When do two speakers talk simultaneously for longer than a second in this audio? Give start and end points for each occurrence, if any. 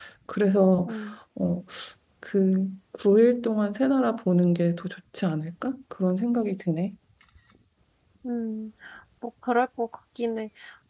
none

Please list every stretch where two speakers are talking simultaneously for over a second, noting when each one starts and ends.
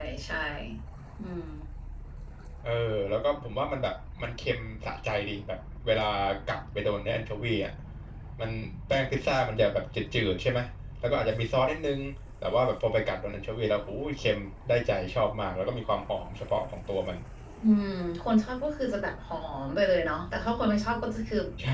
none

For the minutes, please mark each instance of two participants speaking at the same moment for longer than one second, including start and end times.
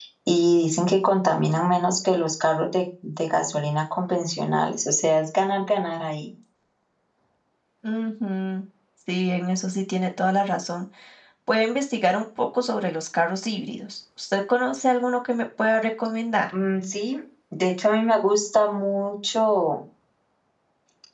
none

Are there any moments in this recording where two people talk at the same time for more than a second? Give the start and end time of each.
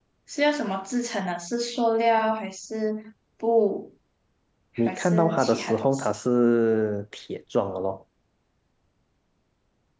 4.8-6.1

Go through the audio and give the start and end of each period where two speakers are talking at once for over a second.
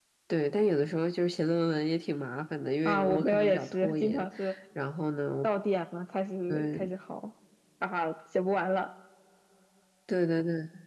2.9-4.3

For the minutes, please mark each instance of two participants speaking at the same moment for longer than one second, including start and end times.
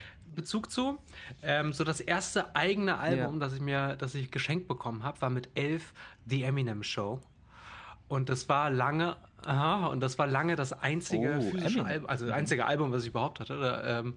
11.1-12.5

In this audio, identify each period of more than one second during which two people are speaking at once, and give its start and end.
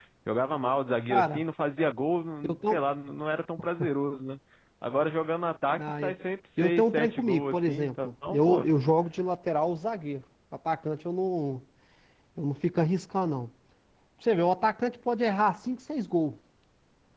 6.6-8.7

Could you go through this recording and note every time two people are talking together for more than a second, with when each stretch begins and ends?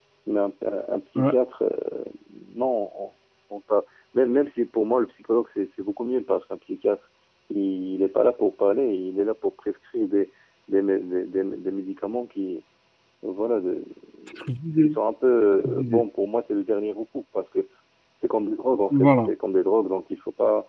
none

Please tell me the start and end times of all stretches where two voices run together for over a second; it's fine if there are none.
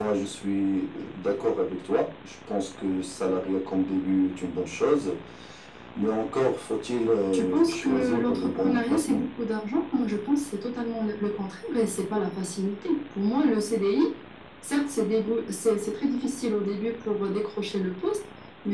7.3-9.2

